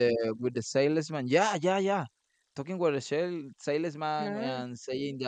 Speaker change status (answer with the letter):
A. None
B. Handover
A